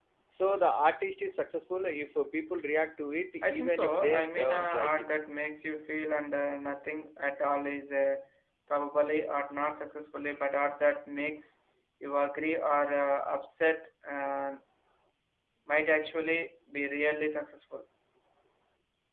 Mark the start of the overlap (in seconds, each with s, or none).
3.4 s